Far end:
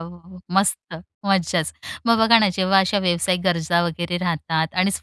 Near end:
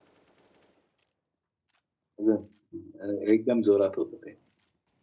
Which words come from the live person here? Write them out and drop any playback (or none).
एकदम अ, एकदम जोरात होतं ते.